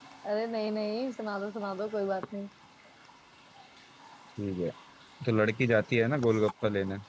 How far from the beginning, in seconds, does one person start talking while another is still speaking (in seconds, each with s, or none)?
none